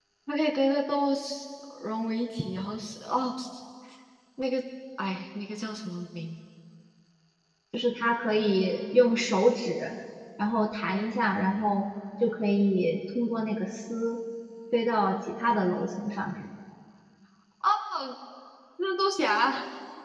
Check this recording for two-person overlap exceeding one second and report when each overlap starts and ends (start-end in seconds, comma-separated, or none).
none